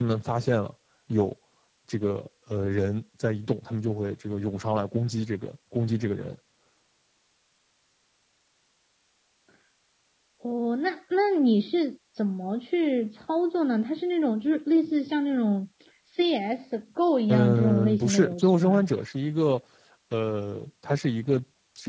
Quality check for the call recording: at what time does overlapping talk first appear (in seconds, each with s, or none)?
17.3 s